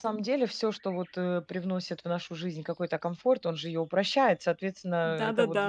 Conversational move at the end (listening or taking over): taking over